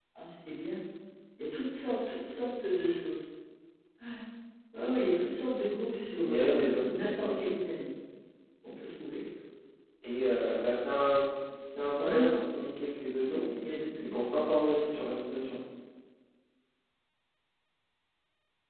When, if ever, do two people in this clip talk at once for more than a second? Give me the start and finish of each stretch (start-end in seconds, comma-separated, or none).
6.2-7.5